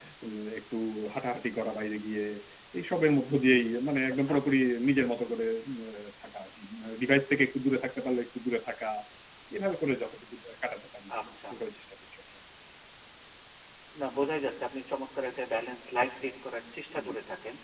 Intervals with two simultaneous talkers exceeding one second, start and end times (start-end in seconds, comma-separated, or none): none